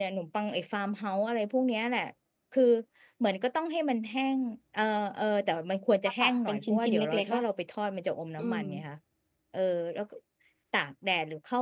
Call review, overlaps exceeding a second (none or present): present